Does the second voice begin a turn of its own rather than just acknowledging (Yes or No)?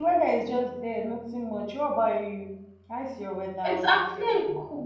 Yes